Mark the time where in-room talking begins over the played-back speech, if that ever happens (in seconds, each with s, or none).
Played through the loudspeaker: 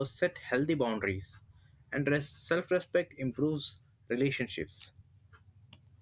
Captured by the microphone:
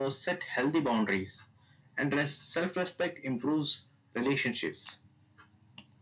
none